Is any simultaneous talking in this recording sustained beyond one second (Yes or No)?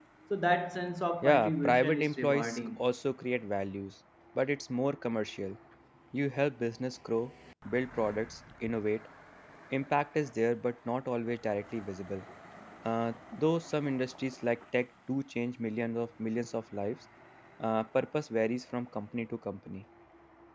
Yes